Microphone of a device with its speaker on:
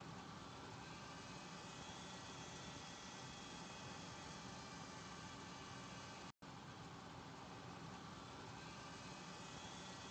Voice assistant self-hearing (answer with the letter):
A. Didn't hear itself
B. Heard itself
A